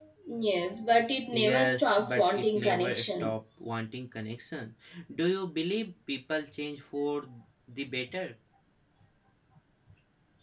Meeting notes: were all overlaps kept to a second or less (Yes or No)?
No